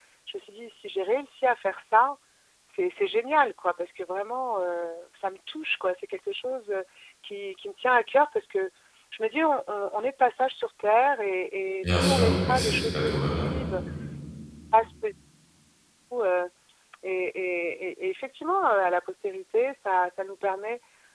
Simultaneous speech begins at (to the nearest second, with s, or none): 12 s